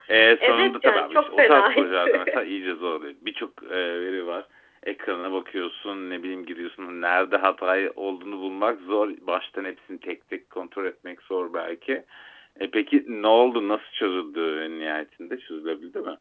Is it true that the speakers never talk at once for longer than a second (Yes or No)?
No